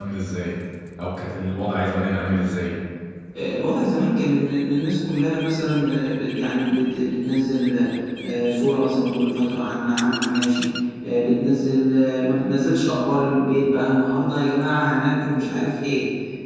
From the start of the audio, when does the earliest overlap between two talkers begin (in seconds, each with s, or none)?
none